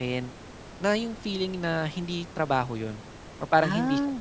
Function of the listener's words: listening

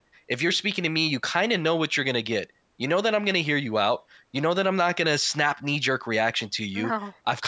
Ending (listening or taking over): listening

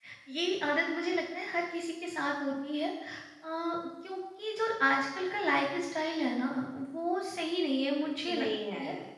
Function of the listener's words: taking over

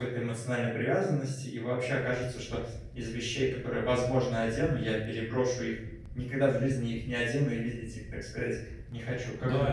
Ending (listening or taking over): taking over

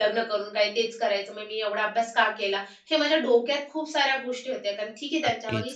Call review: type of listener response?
taking over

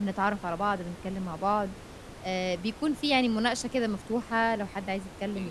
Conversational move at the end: taking over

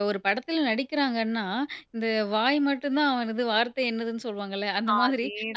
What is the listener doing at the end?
listening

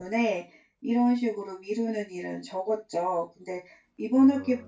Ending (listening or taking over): listening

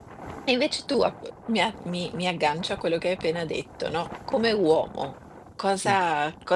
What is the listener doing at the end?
listening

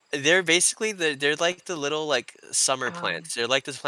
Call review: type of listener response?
listening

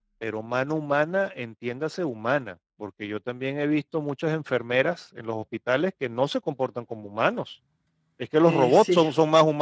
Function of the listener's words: listening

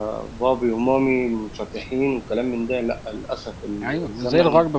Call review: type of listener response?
taking over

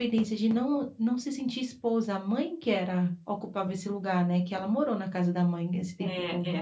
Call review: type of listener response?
taking over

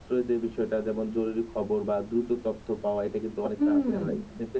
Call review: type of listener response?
listening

